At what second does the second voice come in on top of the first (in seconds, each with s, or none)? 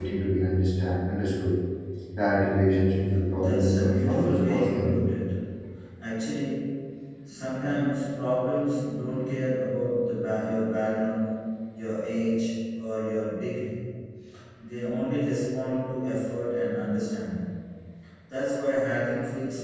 3.3 s